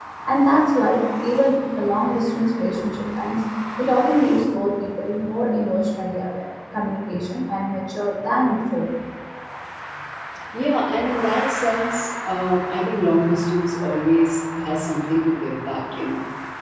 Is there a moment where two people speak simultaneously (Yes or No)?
No